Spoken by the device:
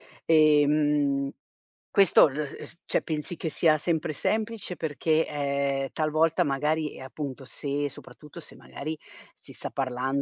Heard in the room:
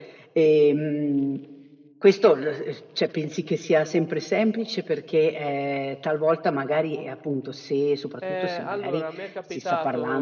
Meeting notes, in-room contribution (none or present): present